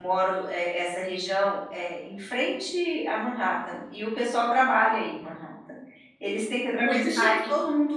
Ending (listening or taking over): listening